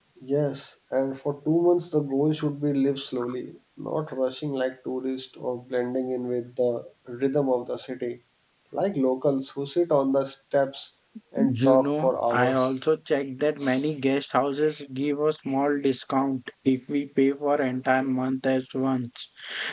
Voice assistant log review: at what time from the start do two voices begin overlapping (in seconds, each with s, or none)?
11.4 s